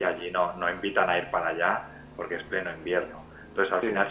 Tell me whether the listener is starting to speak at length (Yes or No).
No